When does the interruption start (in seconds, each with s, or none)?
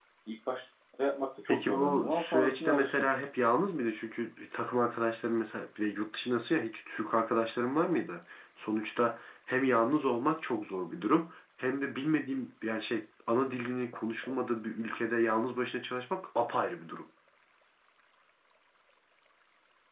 1.4 s